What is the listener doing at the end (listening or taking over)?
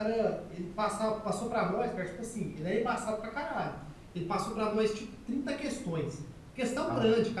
listening